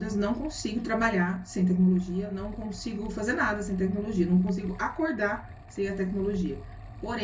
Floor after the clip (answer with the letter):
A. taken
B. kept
B